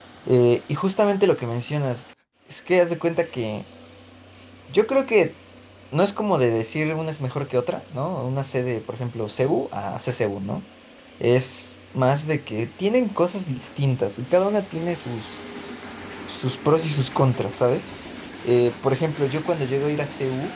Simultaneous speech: No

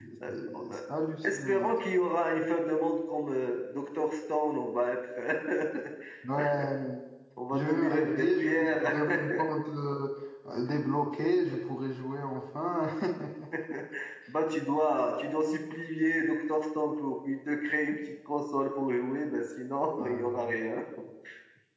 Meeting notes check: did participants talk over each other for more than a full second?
Yes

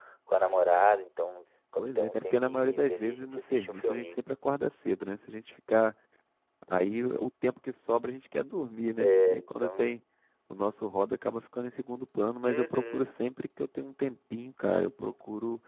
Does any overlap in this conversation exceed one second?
Yes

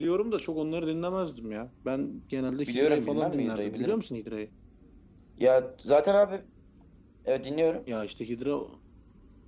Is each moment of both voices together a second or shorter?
No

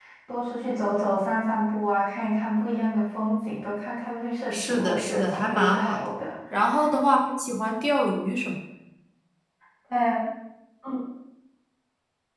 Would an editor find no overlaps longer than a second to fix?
No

